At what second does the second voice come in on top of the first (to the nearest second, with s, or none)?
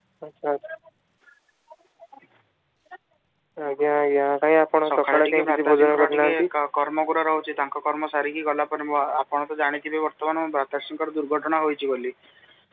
5 s